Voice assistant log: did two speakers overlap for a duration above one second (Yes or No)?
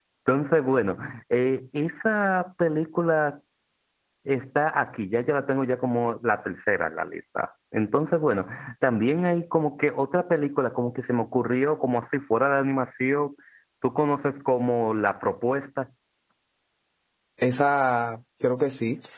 No